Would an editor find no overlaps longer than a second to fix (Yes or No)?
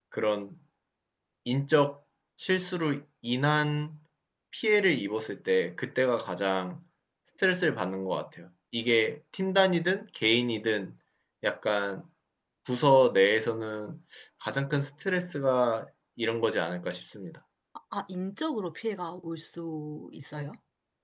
Yes